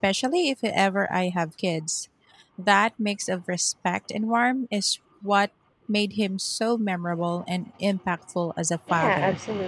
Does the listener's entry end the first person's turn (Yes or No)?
Yes